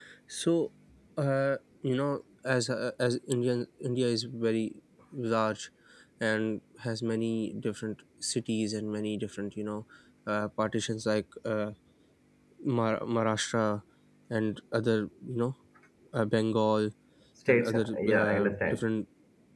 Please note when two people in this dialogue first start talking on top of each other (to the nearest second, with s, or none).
17 s